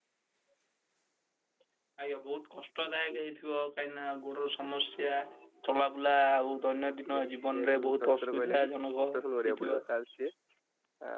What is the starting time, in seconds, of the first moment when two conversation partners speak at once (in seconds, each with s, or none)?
7.1 s